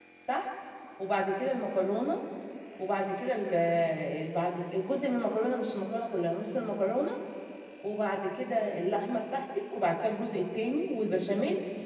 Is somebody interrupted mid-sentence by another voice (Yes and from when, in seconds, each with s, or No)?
No